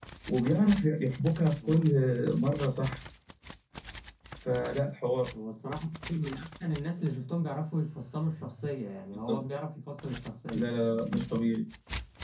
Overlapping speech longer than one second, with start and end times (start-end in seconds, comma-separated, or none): none